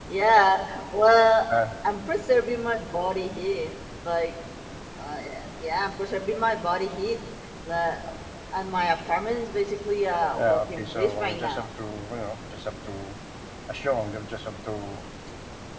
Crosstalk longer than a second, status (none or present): present